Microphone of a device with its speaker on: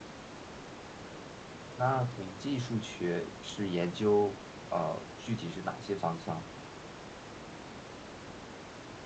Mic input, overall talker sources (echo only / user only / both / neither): user only